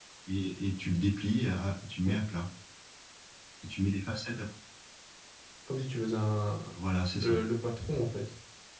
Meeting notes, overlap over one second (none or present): none